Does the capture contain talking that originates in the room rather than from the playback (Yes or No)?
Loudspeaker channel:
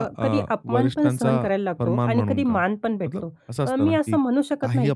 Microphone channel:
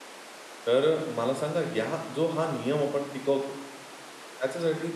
Yes